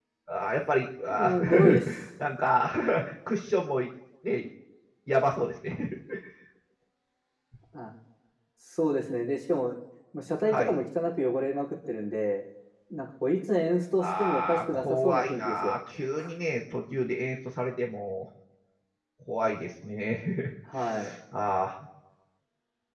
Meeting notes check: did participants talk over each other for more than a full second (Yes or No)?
Yes